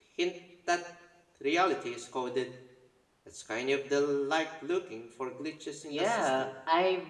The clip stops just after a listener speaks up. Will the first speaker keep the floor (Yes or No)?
No